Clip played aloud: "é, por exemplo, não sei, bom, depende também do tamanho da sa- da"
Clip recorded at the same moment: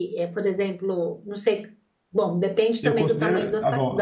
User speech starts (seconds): 3 s

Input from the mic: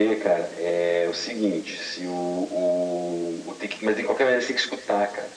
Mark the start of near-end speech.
none

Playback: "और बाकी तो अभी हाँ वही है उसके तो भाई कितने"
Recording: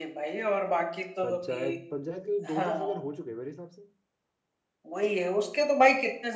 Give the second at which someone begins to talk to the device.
1 s

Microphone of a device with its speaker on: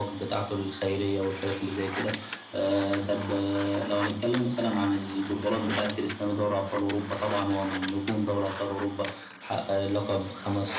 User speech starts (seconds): none

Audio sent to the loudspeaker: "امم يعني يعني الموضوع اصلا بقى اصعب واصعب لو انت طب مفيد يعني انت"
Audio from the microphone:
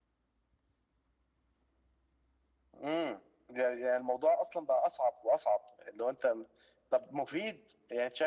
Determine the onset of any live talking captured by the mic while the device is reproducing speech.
none

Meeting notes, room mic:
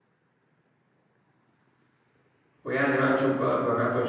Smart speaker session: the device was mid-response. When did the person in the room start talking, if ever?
3 s

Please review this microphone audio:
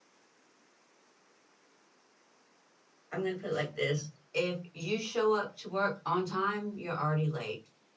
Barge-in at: 3 s

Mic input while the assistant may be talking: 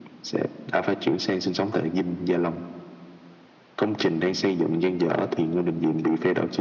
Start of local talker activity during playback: none

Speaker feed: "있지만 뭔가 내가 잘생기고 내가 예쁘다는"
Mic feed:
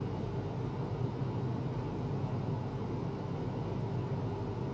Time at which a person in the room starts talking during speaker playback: none

